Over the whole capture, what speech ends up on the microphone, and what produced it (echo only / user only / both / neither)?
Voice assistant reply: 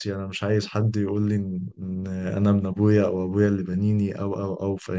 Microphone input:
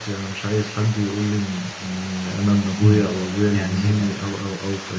both